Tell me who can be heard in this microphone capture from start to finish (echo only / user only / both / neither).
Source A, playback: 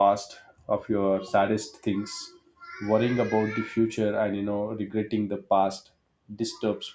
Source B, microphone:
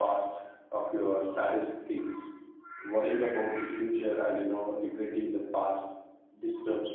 echo only